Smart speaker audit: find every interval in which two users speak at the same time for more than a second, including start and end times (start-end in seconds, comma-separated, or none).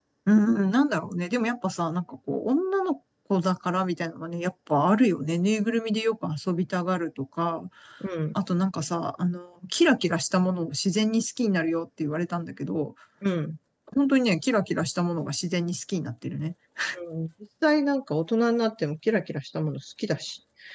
none